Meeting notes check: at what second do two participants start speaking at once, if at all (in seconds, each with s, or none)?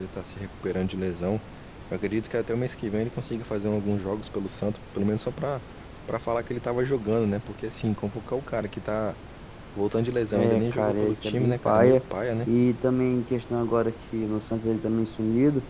10.3 s